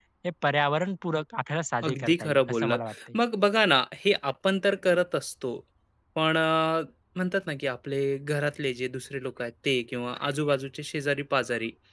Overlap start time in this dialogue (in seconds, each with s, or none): 1.8 s